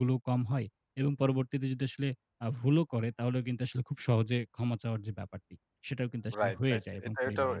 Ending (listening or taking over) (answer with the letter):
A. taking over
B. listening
A